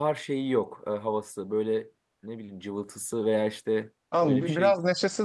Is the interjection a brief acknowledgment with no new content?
No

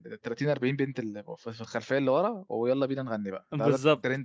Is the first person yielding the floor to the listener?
Yes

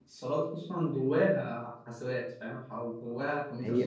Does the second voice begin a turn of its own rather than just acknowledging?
Yes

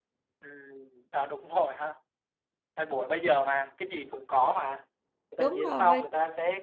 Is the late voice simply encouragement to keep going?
Yes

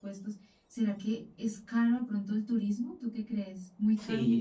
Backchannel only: No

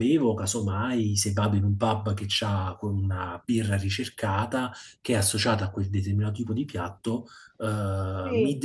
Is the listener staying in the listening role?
Yes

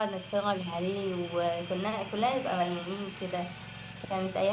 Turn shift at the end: No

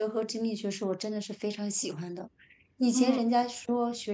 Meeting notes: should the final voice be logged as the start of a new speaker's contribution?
No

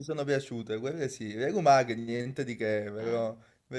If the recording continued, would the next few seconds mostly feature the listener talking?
No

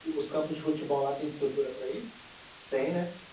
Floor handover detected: Yes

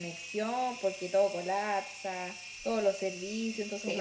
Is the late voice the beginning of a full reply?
Yes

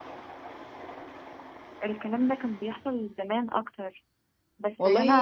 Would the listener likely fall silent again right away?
No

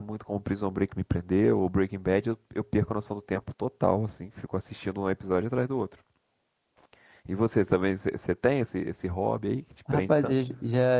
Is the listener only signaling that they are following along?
No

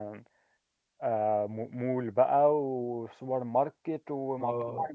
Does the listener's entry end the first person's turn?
Yes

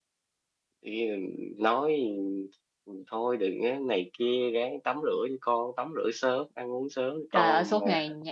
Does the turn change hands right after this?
Yes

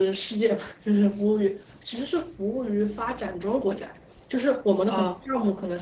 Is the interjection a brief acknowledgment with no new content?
Yes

